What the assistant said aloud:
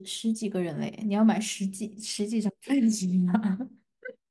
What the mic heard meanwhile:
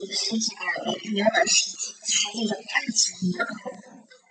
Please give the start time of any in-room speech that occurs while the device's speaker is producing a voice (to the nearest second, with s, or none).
none